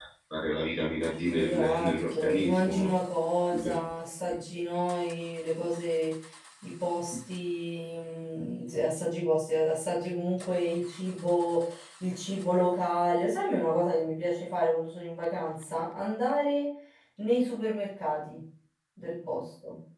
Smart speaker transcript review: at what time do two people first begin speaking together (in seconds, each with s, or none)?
1.3 s